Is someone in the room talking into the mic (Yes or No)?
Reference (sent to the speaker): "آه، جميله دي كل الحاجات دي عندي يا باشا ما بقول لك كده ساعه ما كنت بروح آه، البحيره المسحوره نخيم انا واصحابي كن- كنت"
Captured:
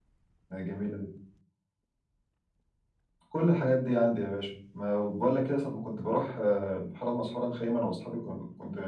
No